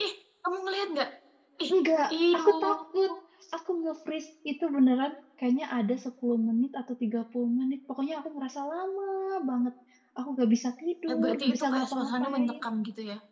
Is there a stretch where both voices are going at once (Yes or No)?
Yes